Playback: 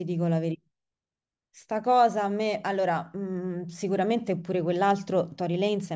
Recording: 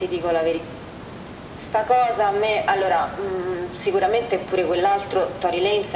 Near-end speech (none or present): none